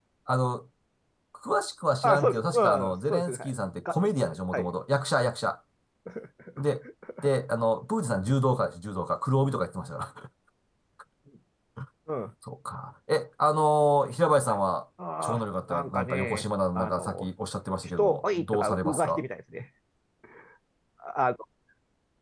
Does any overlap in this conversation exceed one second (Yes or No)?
Yes